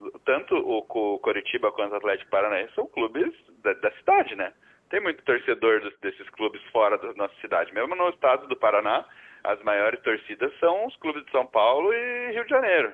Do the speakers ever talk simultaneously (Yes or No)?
No